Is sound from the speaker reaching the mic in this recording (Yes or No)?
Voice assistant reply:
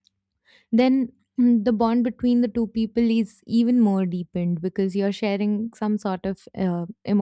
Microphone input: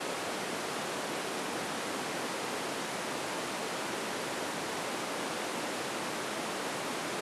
No